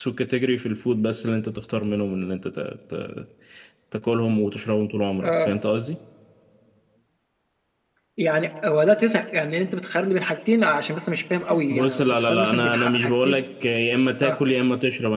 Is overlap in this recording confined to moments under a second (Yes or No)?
No